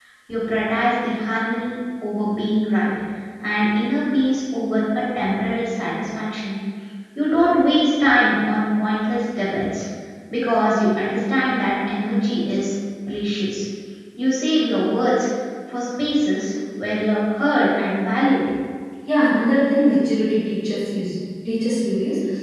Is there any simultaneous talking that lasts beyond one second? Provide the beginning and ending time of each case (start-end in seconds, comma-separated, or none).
none